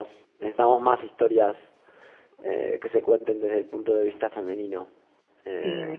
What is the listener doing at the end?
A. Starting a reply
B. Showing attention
A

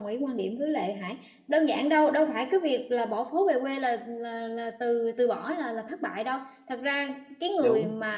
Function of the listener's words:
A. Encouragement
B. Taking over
A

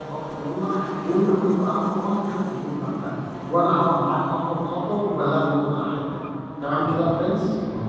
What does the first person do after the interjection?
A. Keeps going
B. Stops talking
B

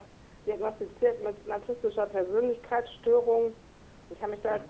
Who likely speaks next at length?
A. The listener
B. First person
B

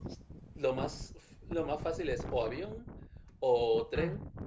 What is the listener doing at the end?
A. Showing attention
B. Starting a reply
A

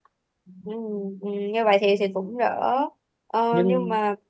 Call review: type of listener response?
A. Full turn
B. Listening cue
B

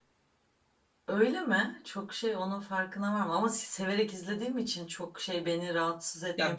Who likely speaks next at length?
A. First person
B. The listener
B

